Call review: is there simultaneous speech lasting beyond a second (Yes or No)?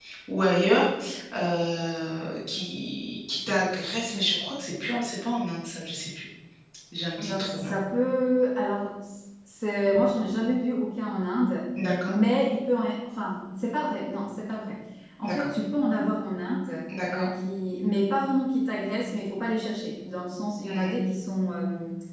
No